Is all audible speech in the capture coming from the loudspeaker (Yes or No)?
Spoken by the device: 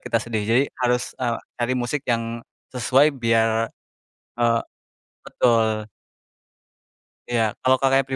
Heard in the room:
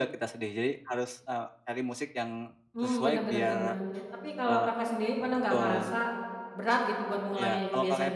No